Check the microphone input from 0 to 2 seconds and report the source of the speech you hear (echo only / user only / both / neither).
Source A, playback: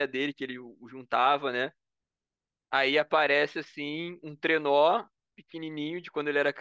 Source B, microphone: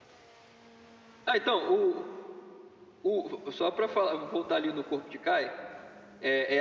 user only